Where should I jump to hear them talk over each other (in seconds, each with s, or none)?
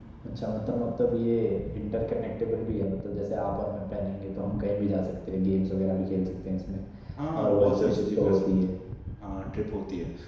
7.3 s